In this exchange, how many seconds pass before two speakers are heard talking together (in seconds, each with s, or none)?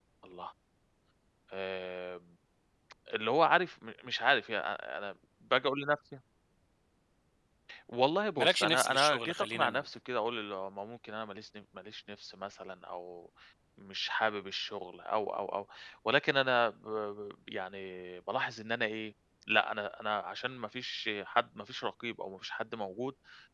8.4 s